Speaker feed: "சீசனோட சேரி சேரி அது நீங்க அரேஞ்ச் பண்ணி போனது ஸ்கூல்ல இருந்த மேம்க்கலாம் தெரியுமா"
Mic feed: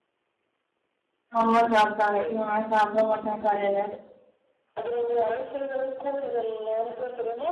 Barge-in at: 1.4 s

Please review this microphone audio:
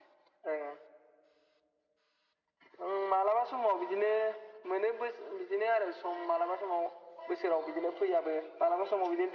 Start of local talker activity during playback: none

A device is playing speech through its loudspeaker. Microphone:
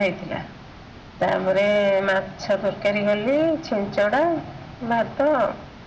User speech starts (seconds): none

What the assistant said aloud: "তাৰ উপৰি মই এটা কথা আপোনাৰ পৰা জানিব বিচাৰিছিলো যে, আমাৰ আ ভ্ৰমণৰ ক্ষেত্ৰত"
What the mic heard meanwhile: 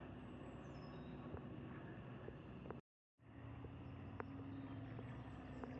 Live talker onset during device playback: none

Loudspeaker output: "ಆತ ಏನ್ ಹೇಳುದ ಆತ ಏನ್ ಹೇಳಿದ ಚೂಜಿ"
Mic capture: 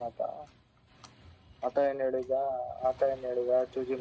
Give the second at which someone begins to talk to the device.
none

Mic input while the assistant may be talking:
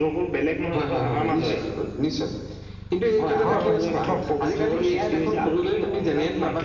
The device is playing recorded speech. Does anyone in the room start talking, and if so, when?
3.4 s

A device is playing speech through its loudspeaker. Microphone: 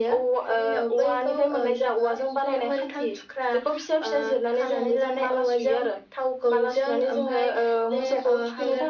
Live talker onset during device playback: none

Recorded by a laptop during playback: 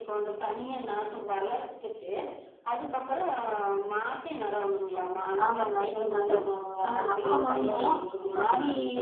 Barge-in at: 5.4 s

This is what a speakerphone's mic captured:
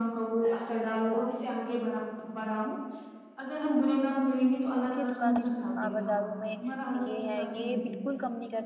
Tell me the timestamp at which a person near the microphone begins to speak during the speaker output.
4.9 s

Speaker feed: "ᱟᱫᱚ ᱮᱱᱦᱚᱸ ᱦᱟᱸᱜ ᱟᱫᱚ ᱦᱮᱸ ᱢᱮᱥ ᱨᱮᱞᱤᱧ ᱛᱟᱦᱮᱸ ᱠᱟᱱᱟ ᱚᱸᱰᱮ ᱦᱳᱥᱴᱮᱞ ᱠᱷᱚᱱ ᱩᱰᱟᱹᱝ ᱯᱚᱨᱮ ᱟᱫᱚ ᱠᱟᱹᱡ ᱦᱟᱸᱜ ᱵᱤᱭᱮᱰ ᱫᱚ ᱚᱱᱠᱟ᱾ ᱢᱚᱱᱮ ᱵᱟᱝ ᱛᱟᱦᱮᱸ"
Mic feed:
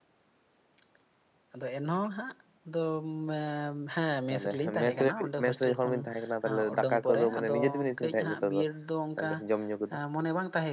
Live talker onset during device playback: 4.3 s

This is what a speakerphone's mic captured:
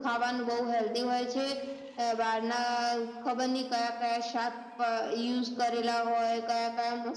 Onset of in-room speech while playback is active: none

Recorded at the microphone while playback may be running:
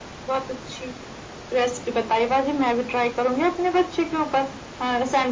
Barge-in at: none

